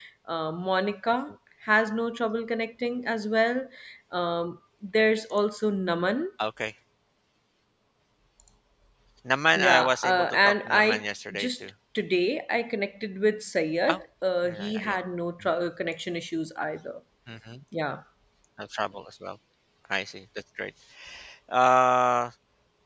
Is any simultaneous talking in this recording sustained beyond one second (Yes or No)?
Yes